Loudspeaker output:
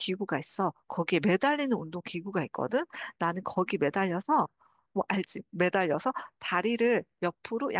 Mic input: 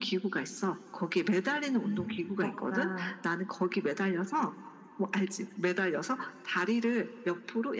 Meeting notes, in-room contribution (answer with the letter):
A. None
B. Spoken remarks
B